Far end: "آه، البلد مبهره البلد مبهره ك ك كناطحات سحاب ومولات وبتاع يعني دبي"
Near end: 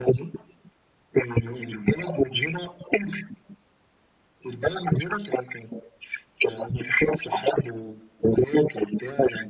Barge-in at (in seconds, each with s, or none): none